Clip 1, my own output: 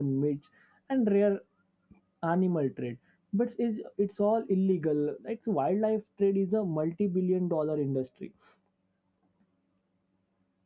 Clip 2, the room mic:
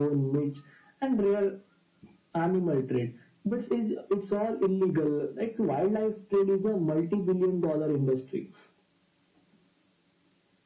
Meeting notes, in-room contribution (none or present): none